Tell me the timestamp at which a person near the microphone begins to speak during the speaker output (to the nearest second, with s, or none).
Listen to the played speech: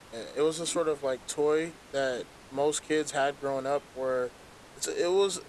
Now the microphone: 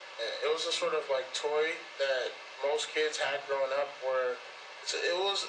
none